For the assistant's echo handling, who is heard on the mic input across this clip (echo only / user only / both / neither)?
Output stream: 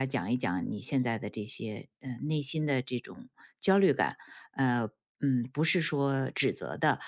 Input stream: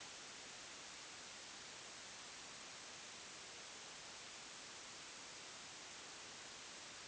neither